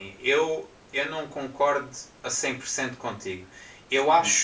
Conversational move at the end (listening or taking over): listening